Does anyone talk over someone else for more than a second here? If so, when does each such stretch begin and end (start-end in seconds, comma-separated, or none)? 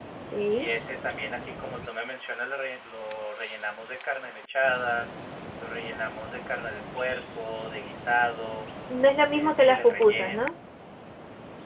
9.2-10.5